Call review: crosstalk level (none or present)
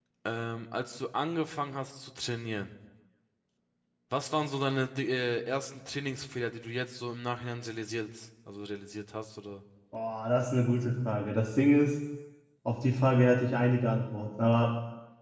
none